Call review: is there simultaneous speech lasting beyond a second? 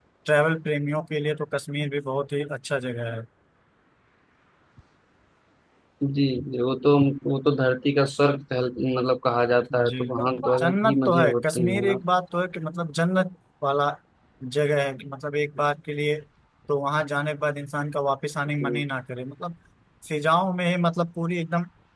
Yes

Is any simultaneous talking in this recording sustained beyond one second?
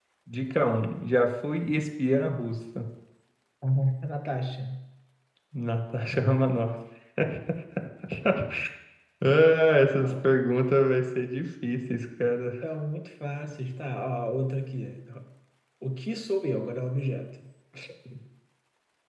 No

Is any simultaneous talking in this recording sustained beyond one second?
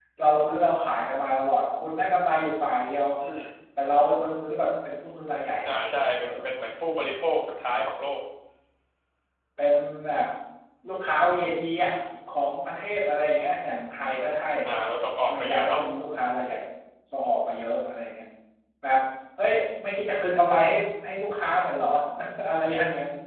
No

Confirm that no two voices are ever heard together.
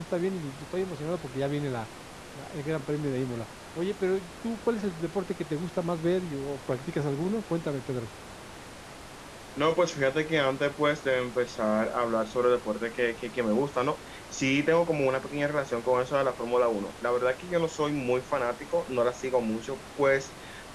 Yes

